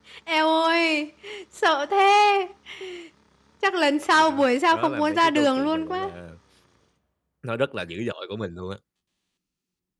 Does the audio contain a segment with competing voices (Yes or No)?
Yes